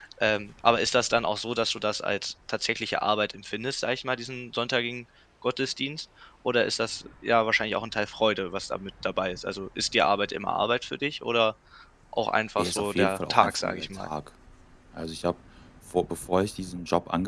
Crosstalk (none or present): present